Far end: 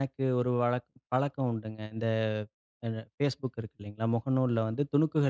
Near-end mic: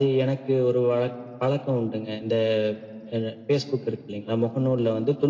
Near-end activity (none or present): none